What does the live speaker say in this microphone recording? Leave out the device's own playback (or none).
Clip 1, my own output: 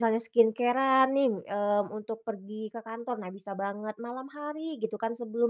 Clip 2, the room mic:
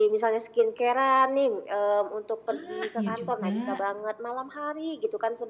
Ah, iya juga.